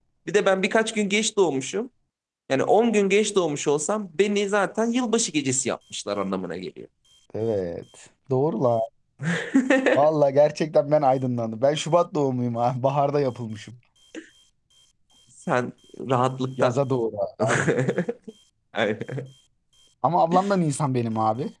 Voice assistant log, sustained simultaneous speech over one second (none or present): none